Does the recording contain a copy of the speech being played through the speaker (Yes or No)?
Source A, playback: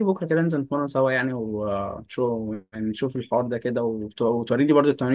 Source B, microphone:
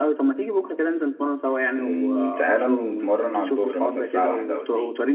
Yes